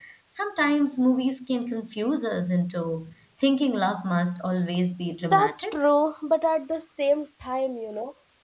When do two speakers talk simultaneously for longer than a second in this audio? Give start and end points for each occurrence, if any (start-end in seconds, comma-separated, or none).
none